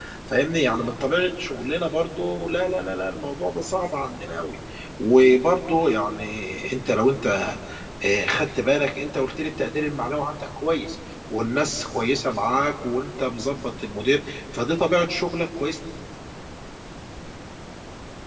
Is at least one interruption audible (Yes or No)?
No